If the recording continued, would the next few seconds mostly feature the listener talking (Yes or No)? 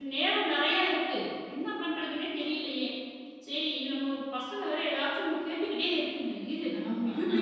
No